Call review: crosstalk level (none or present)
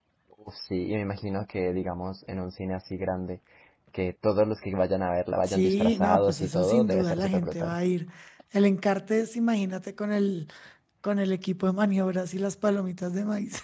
present